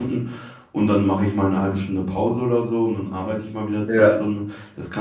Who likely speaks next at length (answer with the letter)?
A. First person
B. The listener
A